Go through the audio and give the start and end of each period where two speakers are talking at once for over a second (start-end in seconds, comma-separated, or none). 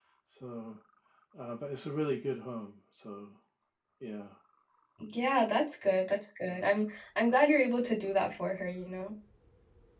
none